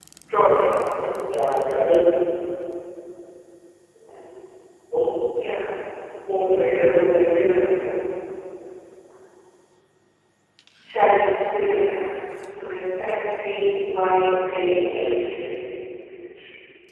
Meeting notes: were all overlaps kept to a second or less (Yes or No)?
No